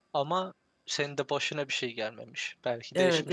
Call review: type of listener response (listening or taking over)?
taking over